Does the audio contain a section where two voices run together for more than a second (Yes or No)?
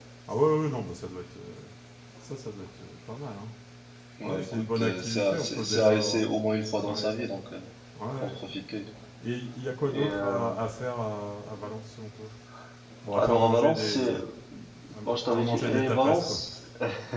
Yes